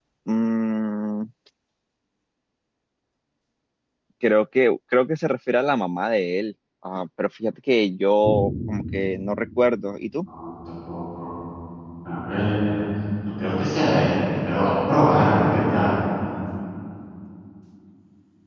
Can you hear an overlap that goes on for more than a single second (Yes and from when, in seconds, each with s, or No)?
No